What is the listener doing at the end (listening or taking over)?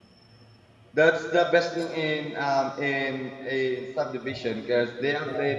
listening